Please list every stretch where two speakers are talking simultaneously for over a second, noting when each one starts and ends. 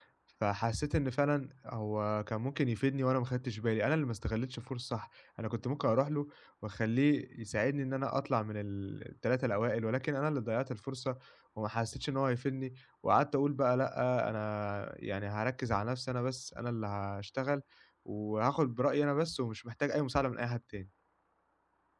none

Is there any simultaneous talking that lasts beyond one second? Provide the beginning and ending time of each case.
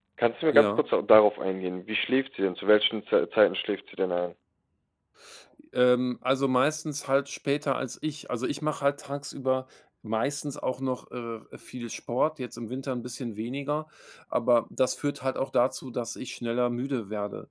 none

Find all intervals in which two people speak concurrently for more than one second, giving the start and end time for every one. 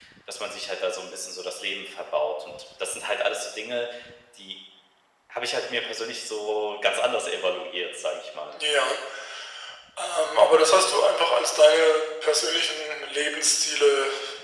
none

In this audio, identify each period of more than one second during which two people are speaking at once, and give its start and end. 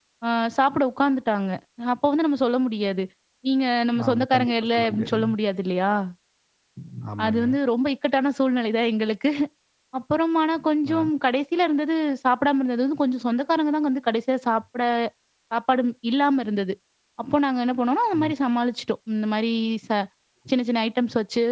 4.1-5.3

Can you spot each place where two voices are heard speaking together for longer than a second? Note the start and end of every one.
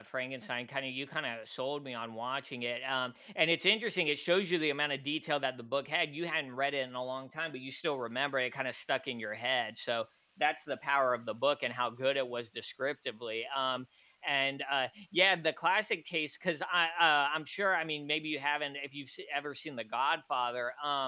none

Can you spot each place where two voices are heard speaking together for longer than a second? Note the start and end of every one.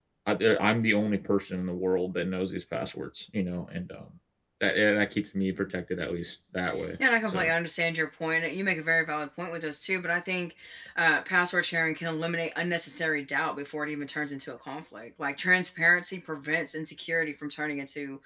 none

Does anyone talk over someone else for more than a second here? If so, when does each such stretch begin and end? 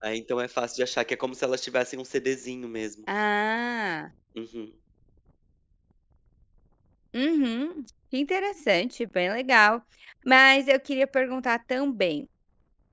none

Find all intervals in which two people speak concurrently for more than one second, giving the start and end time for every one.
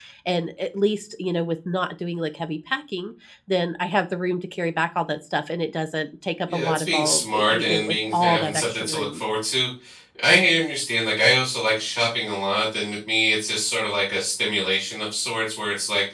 6.5-9.2

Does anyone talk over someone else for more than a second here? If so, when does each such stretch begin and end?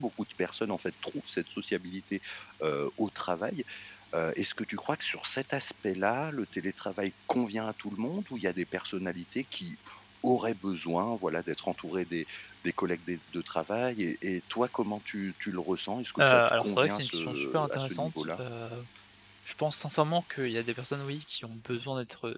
16.2-18.4

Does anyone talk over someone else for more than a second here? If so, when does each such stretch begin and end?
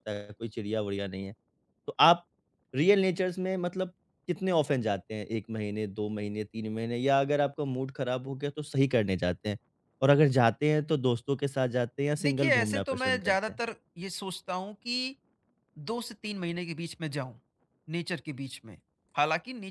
12.2-13.6

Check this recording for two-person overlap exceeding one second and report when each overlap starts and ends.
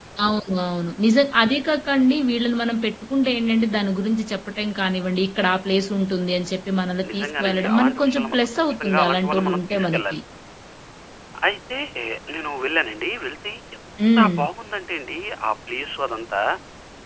7.1-10.2

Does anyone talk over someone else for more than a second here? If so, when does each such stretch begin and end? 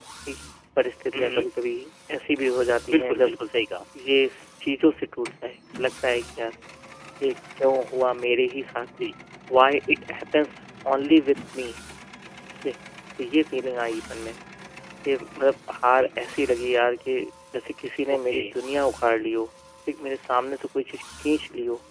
none

